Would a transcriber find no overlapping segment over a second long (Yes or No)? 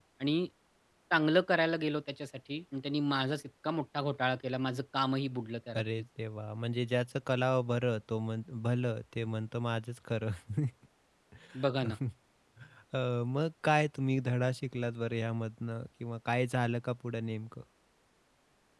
Yes